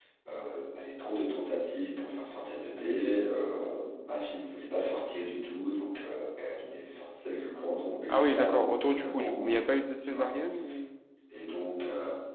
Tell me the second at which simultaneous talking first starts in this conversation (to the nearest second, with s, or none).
8 s